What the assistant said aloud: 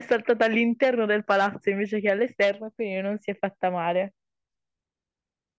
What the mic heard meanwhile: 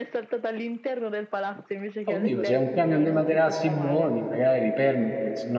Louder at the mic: user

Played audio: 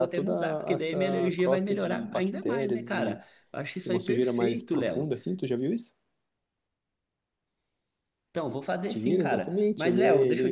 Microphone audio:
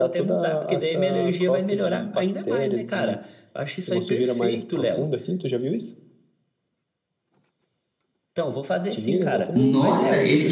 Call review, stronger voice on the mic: user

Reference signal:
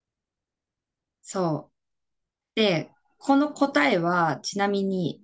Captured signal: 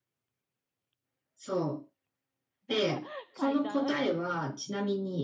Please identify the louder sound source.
echo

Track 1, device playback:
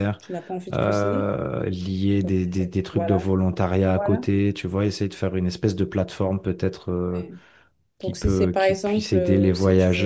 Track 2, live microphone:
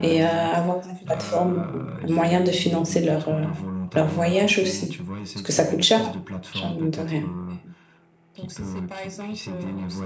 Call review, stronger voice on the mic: user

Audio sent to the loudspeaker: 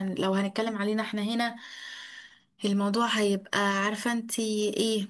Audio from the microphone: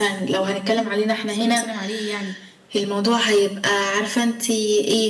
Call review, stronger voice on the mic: echo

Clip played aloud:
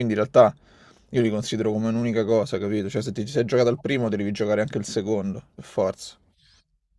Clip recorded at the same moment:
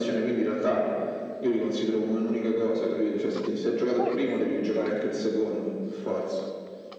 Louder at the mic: echo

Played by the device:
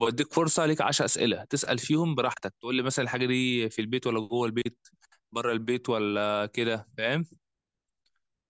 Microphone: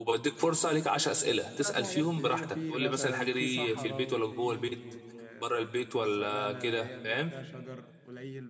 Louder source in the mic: echo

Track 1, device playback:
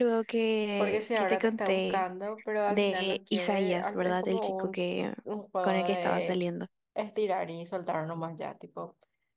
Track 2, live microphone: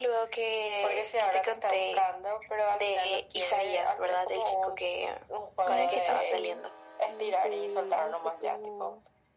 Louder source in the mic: echo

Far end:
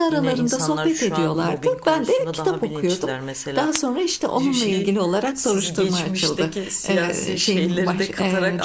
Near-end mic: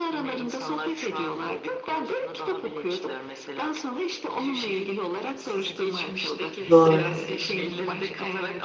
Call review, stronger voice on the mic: user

